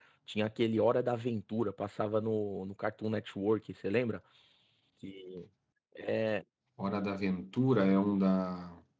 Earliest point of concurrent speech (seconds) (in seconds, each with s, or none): none